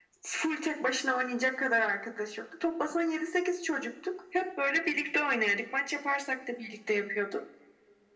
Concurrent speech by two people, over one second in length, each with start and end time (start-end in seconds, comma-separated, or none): none